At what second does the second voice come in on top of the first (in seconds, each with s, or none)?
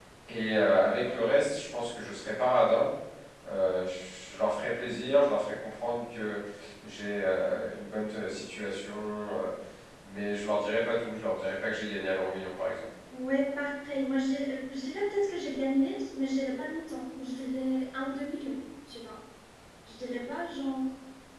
none